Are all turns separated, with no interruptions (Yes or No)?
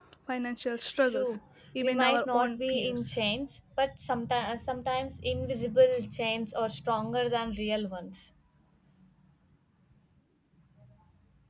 No